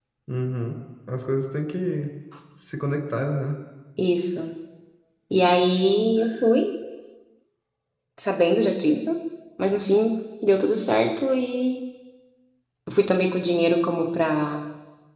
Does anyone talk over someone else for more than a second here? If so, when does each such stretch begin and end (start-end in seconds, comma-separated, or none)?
none